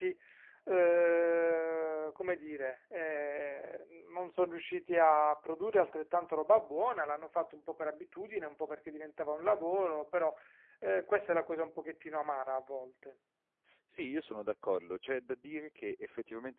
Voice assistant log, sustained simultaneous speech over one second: none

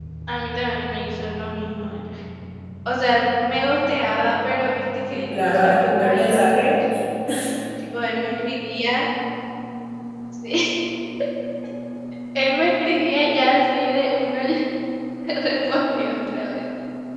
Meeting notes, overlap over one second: present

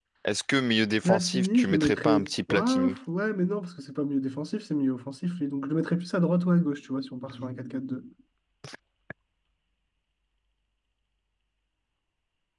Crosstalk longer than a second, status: present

